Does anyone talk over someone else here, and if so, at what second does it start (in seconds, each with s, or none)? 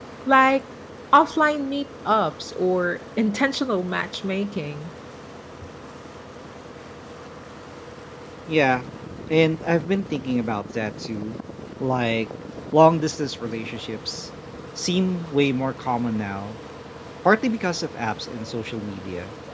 none